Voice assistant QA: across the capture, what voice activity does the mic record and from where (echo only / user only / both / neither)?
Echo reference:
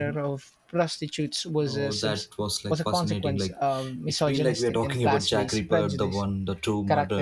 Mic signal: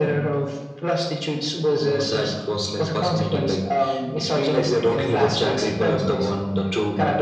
echo only